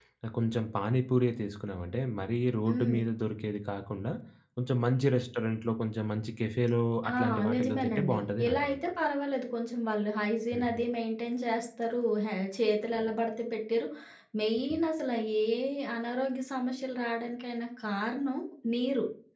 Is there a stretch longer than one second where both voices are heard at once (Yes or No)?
Yes